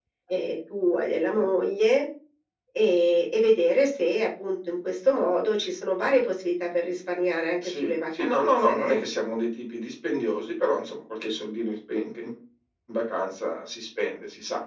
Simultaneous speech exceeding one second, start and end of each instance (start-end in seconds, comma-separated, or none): 7.6-9.0